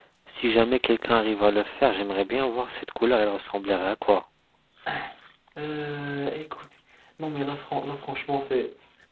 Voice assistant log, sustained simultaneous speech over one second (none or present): none